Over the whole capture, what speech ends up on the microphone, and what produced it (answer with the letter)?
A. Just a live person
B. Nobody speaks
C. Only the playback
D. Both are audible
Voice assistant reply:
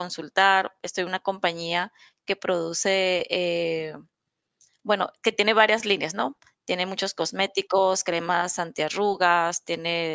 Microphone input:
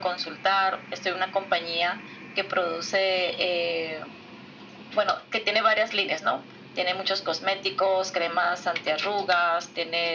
C